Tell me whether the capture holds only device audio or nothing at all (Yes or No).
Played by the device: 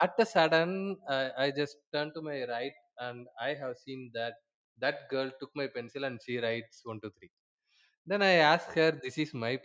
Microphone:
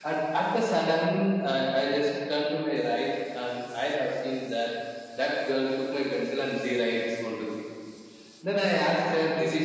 Yes